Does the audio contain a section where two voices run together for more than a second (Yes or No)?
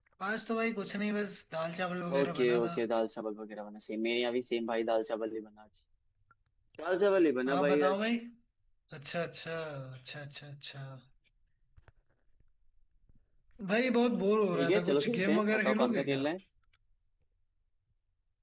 Yes